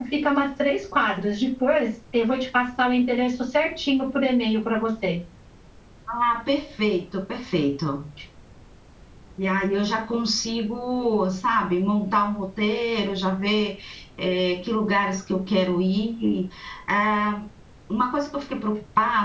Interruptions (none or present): none